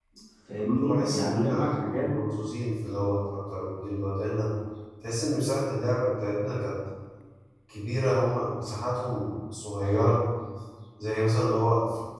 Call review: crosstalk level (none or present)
present